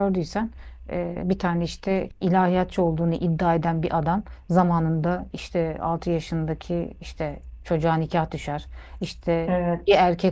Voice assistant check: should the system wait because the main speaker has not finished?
Yes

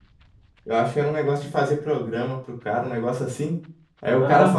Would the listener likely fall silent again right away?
Yes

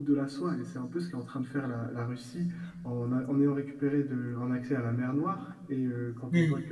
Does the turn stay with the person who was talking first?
Yes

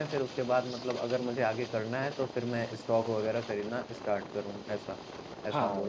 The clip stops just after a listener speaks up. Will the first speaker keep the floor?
No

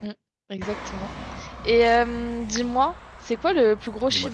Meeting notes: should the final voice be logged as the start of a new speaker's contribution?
No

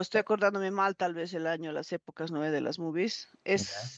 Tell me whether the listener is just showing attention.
Yes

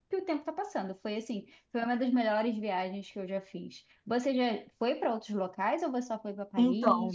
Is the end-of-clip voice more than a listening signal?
Yes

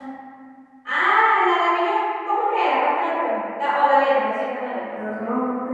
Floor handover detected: Yes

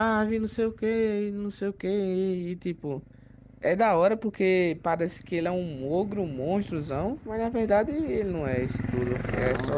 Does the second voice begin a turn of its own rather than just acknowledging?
Yes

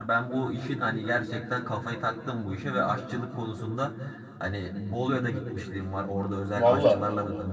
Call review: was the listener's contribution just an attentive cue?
Yes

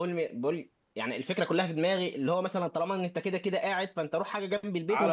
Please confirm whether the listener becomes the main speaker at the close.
Yes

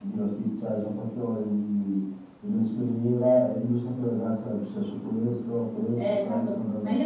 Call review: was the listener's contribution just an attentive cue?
No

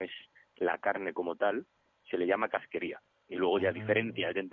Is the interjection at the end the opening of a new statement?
No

